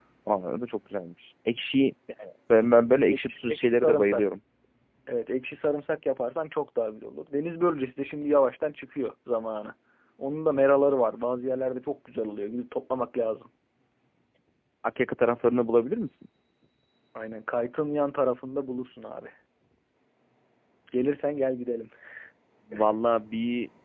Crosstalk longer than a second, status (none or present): present